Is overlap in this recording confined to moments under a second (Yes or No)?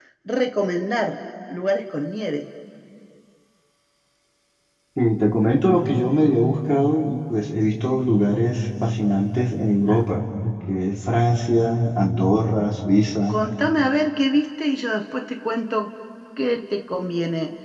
Yes